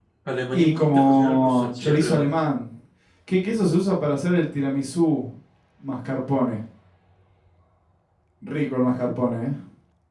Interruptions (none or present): present